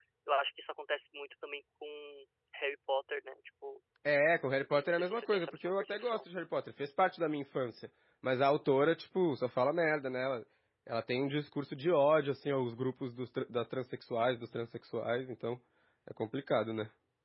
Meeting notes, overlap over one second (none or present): present